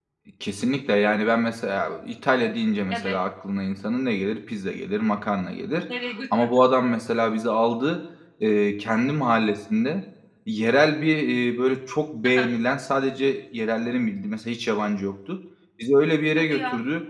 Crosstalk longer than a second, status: none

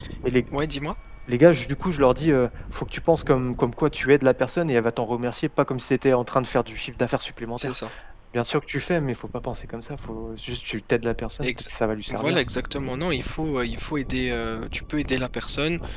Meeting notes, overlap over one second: none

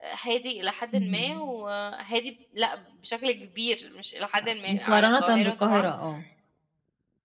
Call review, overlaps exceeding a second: present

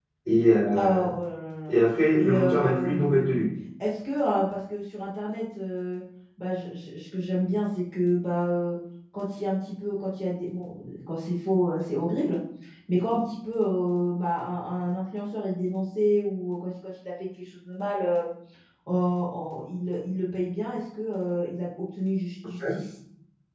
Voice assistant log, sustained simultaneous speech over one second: present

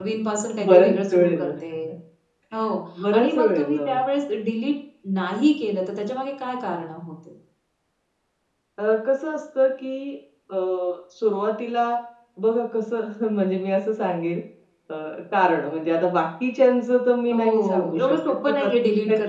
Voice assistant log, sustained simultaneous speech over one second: present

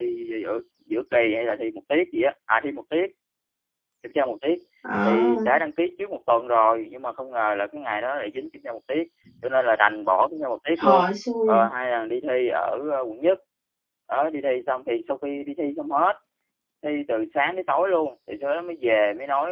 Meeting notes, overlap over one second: none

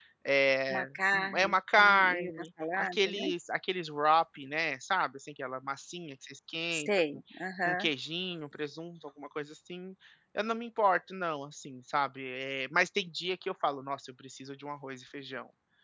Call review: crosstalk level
present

